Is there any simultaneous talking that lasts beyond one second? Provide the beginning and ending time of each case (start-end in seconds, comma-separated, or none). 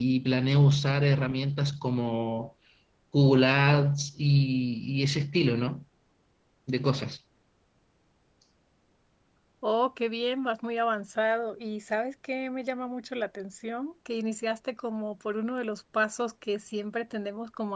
none